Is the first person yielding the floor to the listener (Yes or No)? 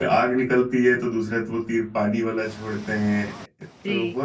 No